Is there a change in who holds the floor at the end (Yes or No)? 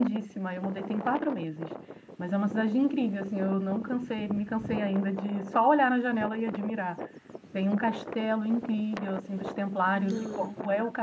No